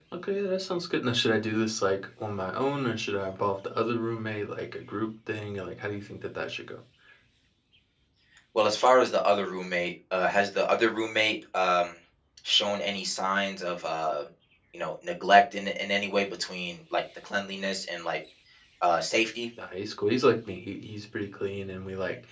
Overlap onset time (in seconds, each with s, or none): none